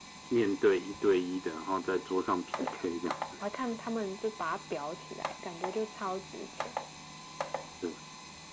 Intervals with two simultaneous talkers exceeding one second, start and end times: none

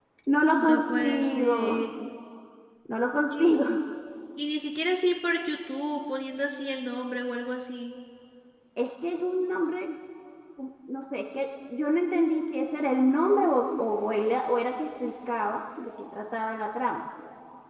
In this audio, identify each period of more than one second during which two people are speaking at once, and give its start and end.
0.6-1.9

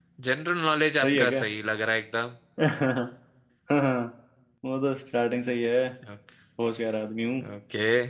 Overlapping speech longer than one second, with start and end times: none

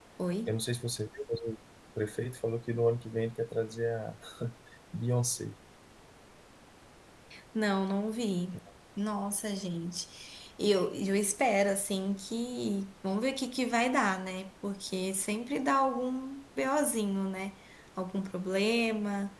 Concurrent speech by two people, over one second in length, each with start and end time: none

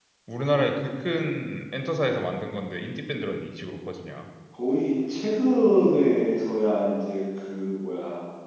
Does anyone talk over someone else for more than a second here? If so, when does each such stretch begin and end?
none

